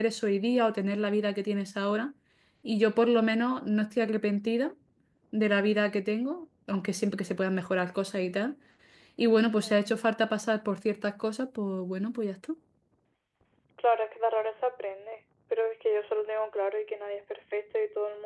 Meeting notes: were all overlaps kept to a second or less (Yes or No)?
Yes